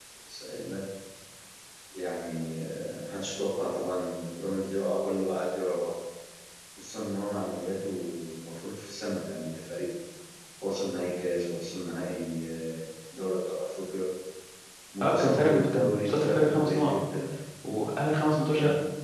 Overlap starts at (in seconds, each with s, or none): 15.0 s